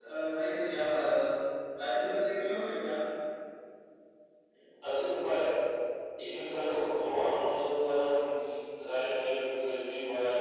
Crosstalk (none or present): none